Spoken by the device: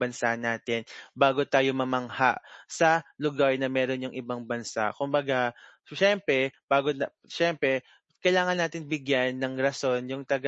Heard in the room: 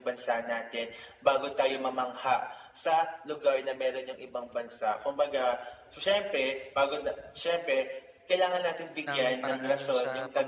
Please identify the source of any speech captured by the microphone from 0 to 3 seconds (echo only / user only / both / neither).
echo only